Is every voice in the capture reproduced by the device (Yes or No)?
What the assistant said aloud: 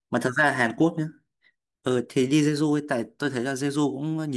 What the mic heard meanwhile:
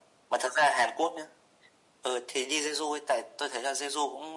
Yes